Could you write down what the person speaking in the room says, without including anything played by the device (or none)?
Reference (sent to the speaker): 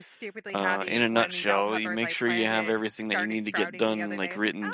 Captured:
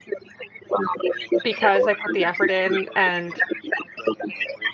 because I put the effort in and